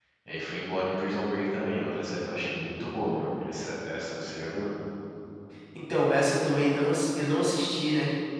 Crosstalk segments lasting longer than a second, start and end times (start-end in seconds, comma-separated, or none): none